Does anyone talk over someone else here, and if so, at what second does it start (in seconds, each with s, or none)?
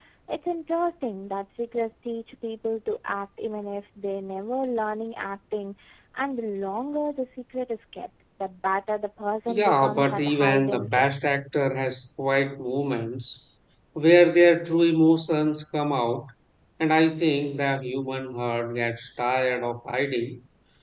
9.5 s